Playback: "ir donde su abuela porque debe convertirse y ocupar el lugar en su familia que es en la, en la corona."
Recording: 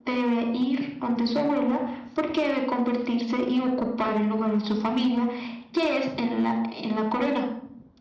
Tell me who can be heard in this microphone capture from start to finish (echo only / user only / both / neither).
echo only